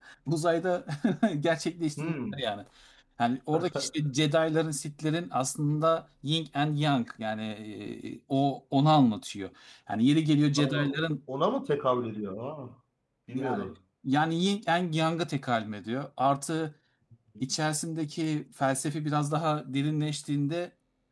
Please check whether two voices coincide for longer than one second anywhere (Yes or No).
No